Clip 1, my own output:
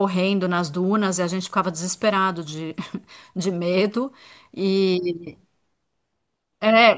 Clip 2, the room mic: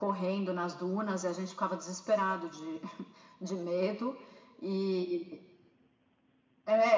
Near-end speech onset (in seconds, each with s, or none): none